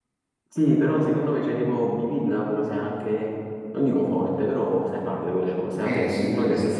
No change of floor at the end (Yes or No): No